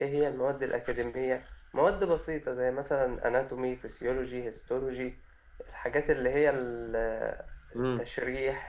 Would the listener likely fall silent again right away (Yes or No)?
Yes